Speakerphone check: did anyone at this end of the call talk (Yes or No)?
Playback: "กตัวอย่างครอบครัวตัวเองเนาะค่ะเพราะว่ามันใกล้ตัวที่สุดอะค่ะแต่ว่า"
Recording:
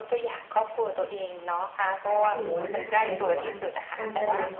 Yes